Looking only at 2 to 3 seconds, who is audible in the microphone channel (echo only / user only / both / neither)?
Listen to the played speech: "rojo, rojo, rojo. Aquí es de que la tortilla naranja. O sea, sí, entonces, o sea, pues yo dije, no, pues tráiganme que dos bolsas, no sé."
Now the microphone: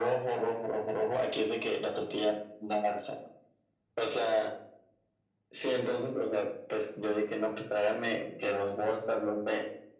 echo only